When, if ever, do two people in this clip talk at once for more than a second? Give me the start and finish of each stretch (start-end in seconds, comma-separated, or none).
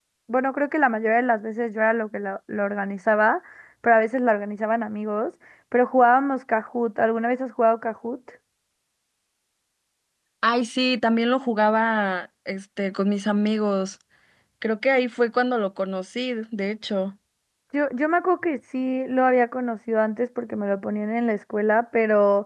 none